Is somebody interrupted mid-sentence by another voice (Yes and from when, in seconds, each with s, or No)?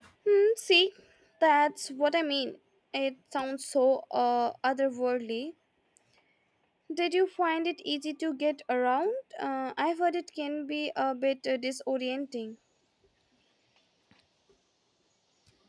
No